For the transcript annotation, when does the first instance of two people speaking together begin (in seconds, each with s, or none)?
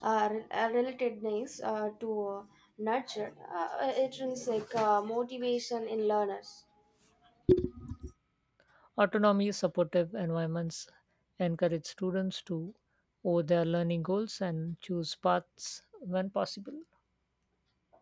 none